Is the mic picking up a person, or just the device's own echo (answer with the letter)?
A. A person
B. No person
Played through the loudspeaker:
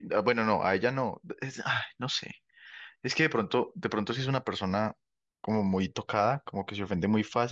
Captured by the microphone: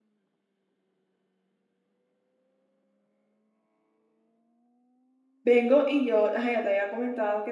A